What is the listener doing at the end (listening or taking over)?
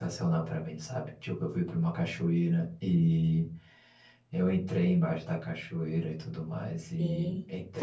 listening